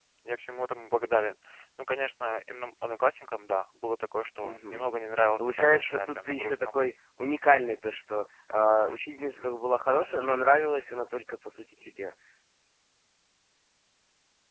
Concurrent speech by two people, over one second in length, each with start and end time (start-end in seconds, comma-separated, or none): 5.4-6.7